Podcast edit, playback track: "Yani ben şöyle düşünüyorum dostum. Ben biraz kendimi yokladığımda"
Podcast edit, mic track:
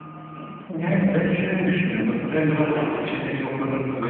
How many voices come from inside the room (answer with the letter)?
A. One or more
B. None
B